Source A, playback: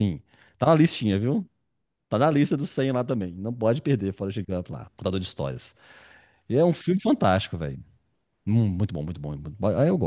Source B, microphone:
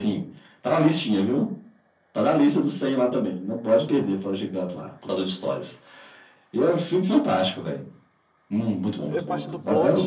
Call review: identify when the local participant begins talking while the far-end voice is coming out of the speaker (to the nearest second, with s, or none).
9 s